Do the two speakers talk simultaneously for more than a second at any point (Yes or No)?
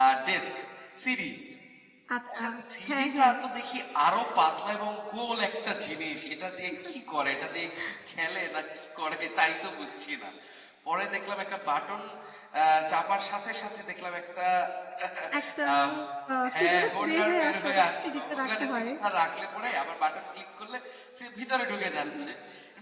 Yes